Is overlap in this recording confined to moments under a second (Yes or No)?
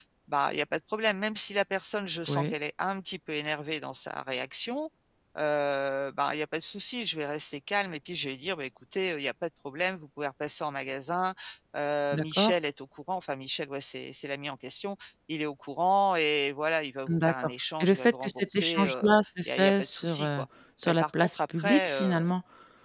No